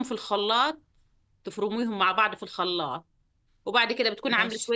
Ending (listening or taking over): listening